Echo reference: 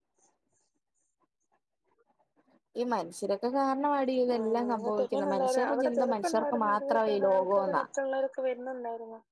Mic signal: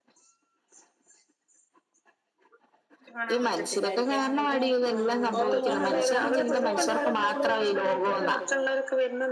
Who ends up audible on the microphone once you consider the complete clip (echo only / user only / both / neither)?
both